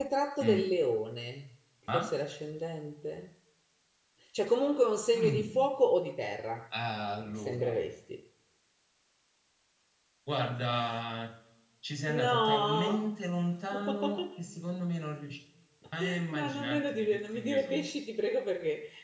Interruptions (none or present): present